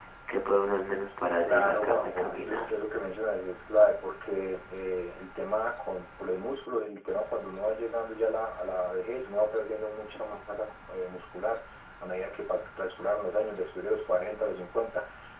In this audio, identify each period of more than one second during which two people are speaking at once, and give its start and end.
1.4-2.7

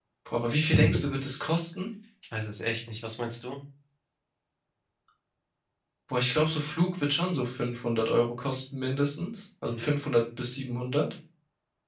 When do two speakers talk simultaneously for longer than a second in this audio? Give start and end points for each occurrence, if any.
none

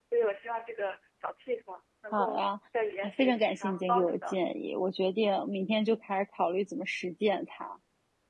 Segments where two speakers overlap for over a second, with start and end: 3.0-4.5

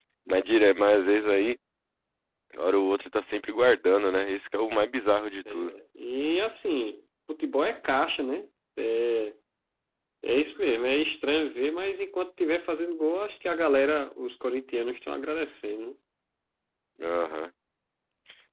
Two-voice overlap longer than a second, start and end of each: none

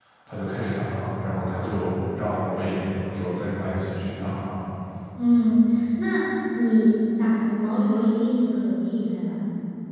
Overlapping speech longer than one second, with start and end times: none

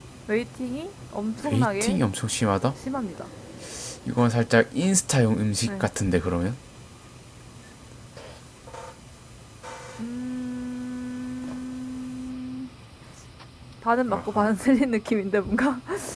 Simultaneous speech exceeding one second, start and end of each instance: none

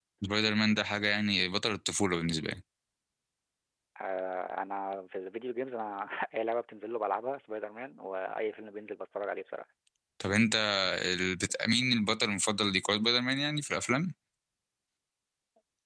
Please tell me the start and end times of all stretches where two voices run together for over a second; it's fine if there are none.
none

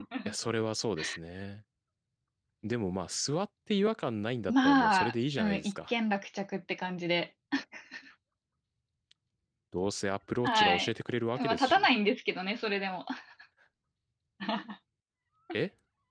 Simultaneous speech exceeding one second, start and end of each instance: 4.5-5.9

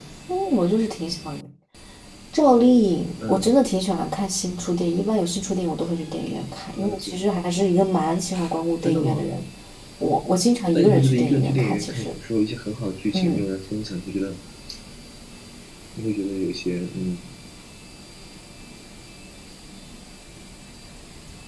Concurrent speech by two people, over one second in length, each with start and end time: 10.7-12.1

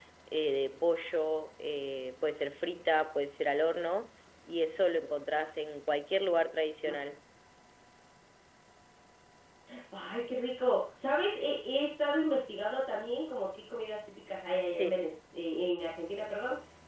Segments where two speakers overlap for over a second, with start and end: none

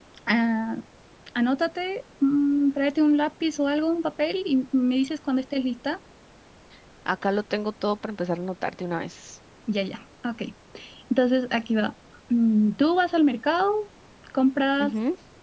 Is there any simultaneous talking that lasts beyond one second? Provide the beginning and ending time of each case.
none

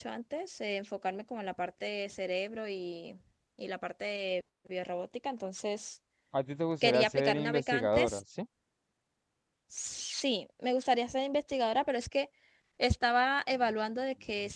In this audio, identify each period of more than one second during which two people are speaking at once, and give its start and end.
6.8-8.2

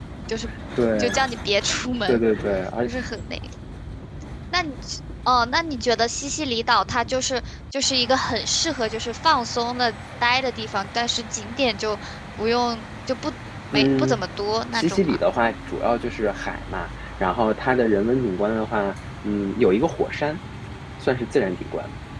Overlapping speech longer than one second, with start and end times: none

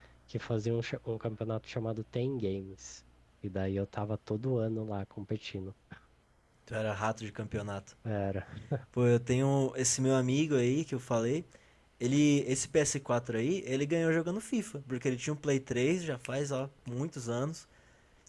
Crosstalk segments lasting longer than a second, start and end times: none

